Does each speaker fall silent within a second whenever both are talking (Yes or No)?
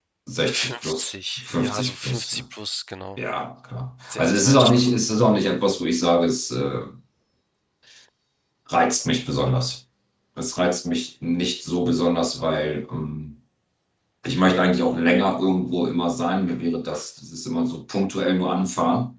No